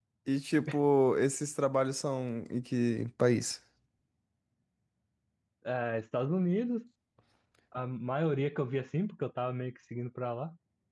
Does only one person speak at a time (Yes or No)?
Yes